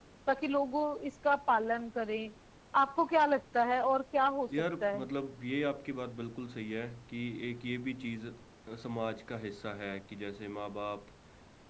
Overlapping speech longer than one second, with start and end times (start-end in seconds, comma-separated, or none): none